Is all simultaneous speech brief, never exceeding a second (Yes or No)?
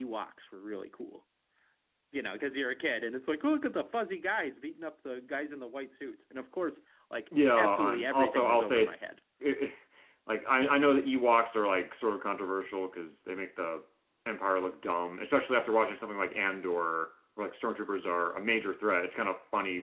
No